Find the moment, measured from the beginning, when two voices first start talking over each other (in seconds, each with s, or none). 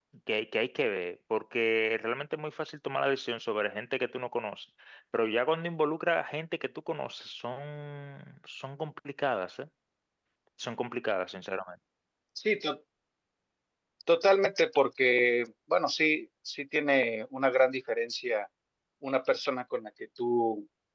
none